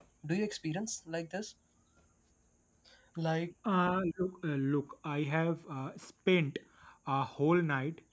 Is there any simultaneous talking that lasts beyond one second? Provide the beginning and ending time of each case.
none

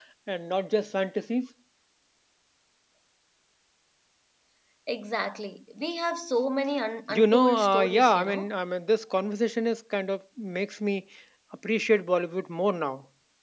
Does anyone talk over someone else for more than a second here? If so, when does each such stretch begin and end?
7.1-8.5

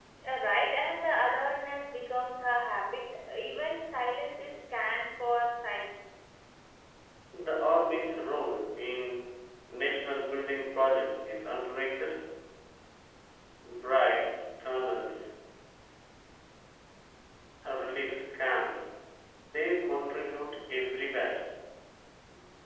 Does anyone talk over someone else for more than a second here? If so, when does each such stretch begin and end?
none

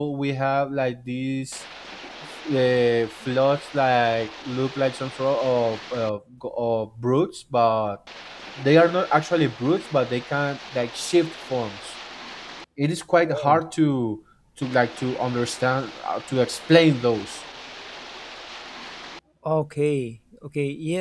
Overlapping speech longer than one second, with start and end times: none

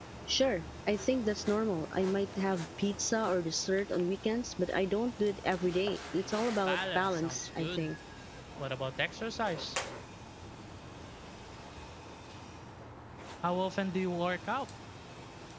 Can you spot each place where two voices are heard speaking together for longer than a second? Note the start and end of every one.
6.7-7.9

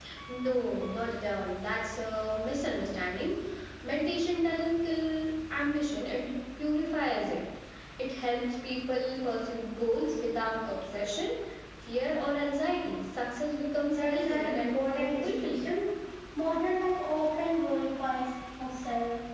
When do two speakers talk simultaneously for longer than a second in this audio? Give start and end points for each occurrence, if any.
13.9-15.7

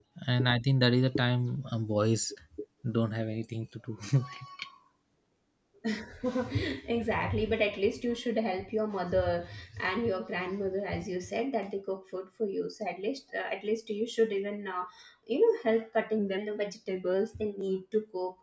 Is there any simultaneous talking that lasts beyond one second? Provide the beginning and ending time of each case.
none

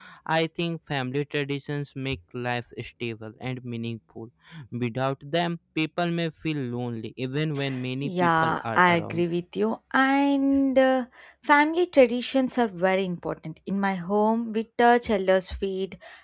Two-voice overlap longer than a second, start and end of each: 8.0-9.2

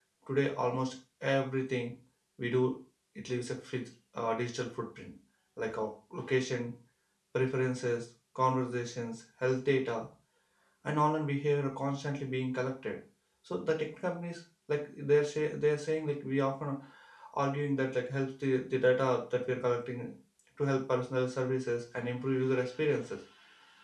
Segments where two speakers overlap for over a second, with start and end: none

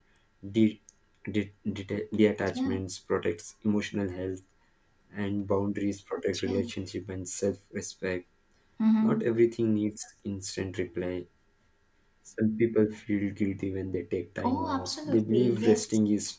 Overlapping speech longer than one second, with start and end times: 14.4-15.8

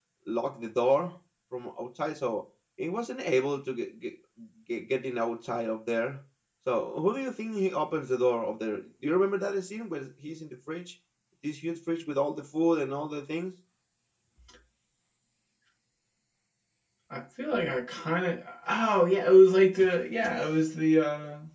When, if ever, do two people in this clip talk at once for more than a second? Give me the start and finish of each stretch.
none

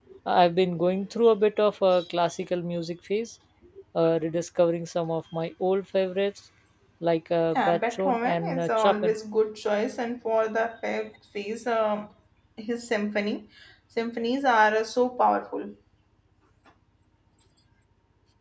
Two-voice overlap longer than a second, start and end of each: 7.5-9.2

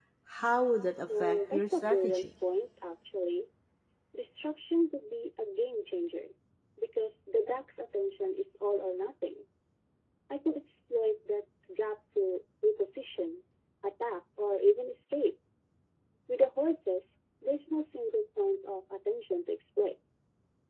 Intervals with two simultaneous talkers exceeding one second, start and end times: 1.0-2.3

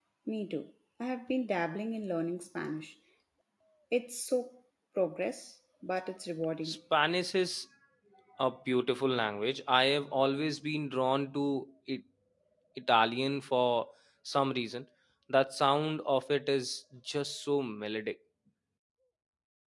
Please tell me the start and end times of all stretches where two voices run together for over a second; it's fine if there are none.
none

